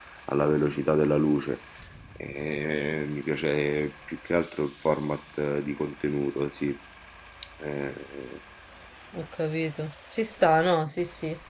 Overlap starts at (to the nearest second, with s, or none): none